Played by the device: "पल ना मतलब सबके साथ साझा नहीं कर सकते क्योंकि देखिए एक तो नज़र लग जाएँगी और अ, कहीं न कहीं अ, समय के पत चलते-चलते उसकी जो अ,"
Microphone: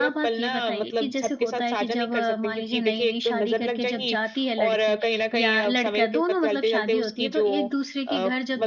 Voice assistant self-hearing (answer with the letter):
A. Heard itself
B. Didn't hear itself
A